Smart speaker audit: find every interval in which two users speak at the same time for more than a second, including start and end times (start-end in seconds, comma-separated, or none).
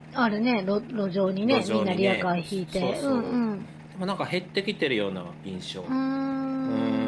1.4-3.4